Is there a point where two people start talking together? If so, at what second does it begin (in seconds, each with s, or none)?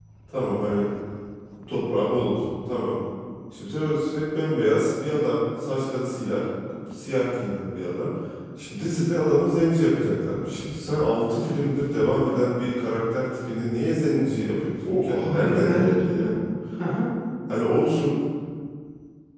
14.8 s